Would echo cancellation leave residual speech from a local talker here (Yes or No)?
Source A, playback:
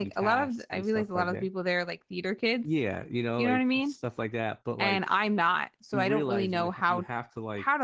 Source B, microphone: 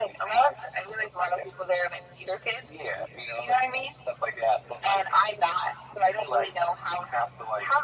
No